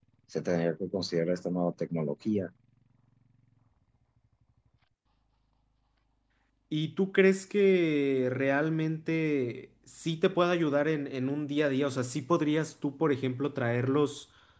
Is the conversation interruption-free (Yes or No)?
Yes